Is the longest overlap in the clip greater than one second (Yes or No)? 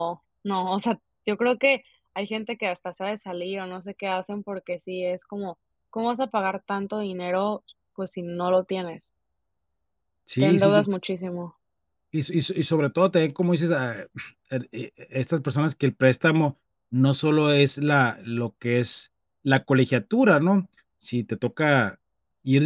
No